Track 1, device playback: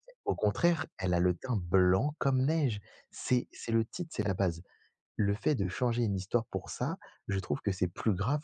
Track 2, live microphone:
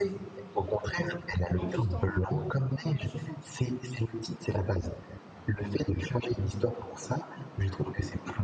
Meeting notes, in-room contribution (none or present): present